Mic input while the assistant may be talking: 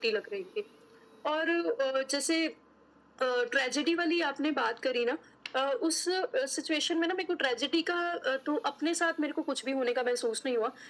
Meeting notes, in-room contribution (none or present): none